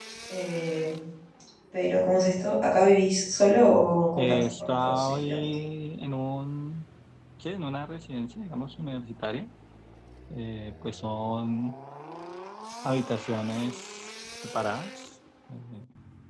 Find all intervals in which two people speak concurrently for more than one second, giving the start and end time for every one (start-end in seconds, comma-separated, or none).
4.2-5.4